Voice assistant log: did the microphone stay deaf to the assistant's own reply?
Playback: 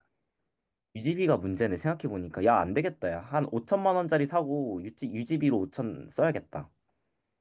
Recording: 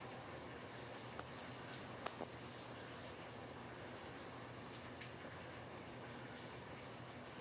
Yes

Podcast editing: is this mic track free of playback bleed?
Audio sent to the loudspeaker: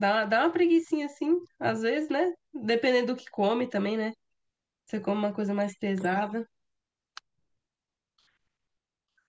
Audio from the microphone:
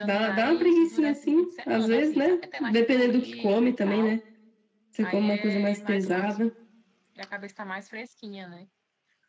No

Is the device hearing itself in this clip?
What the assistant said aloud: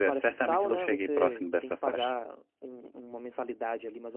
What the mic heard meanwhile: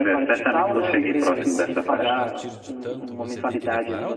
Yes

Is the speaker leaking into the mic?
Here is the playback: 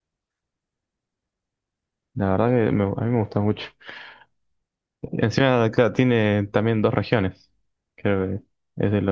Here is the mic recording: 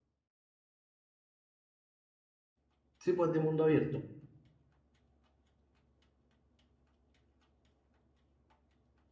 No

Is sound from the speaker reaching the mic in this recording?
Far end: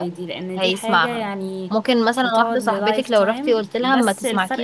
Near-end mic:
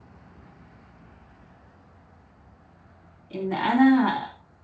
No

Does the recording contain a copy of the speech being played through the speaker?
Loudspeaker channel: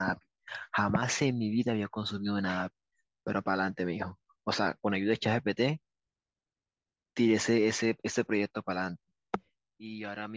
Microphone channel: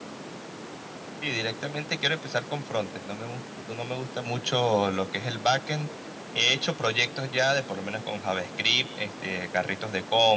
No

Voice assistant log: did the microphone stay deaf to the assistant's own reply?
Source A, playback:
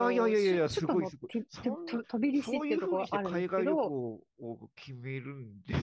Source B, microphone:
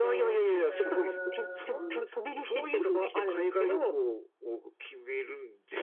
No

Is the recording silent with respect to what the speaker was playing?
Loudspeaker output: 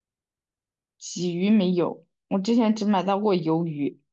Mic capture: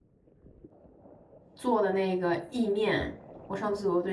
Yes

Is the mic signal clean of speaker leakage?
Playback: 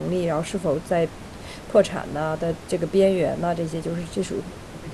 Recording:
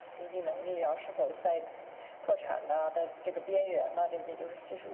No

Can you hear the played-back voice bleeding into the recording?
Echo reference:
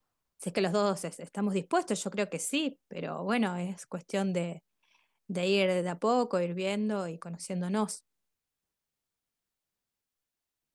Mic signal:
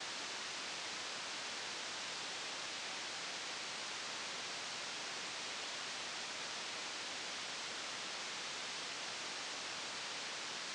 No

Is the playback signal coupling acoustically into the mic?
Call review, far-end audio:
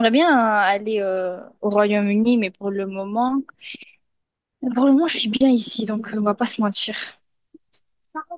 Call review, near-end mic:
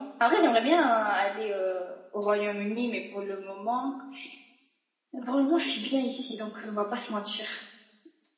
Yes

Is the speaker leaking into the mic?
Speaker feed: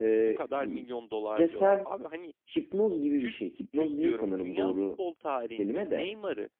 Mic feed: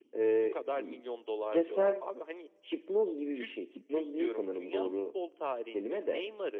Yes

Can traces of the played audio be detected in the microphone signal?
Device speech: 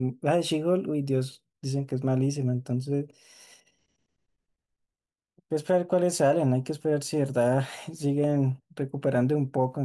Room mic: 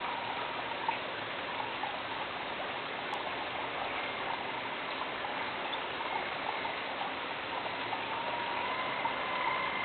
No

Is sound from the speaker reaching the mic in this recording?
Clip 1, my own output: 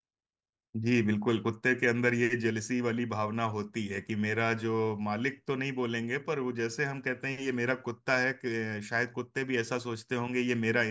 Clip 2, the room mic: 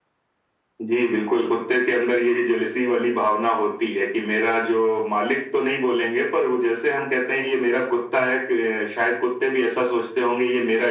Yes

